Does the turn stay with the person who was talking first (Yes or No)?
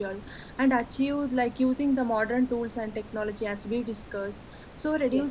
Yes